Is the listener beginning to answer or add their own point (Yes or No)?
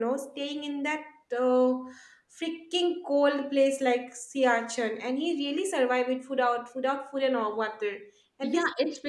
Yes